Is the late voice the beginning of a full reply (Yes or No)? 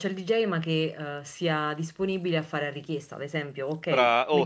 Yes